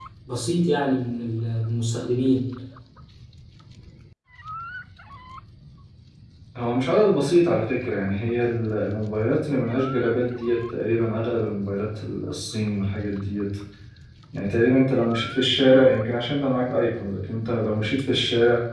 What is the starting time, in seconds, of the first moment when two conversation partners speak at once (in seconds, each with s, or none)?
none